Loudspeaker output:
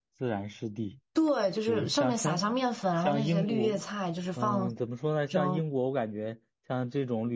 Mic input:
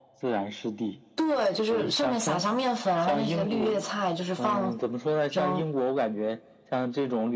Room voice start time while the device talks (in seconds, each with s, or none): none